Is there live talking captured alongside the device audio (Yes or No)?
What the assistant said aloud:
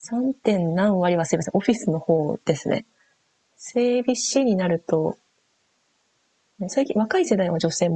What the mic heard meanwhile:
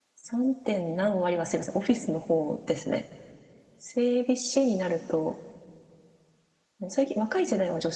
No